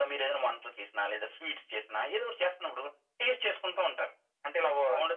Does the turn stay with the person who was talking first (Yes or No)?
Yes